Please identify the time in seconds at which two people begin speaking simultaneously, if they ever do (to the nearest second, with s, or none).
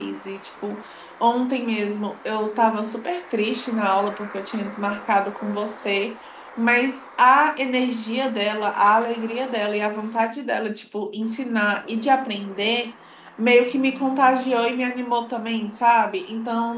none